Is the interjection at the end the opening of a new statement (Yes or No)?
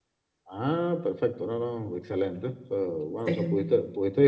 No